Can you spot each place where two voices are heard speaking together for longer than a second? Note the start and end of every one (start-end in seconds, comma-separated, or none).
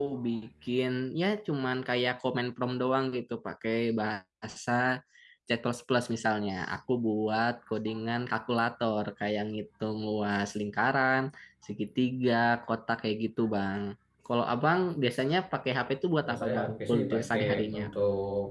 16.2-17.9